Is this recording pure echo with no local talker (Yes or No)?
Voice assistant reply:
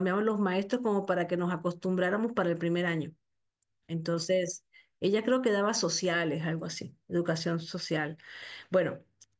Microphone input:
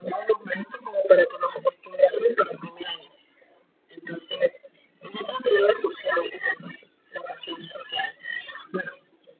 Yes